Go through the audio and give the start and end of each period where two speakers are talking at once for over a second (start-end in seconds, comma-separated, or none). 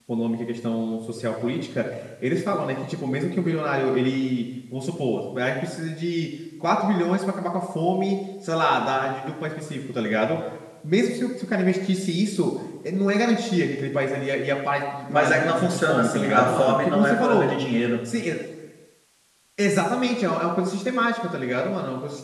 15.1-17.4